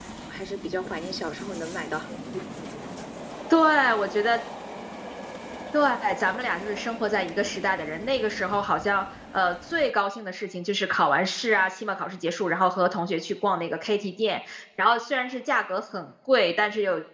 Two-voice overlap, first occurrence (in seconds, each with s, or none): none